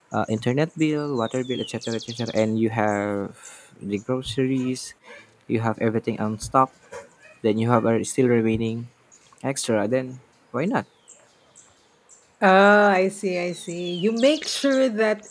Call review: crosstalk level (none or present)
none